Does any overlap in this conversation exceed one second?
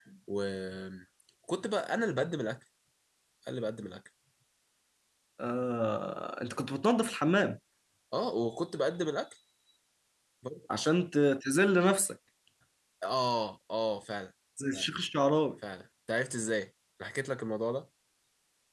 No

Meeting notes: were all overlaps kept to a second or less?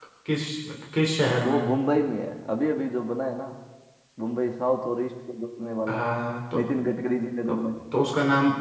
Yes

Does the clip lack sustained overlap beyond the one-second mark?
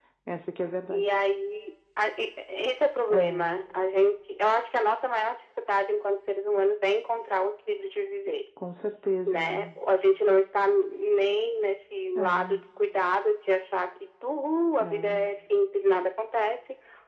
Yes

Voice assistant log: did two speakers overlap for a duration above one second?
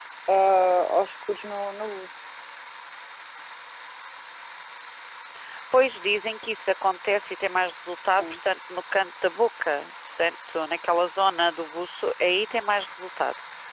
No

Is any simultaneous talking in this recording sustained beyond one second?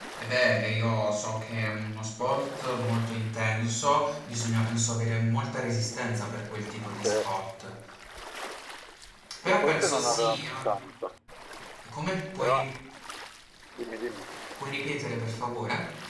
Yes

